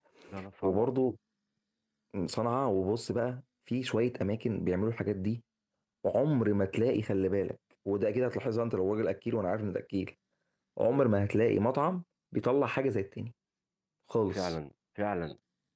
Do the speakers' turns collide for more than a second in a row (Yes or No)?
No